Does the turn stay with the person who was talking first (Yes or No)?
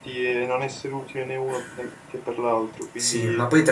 No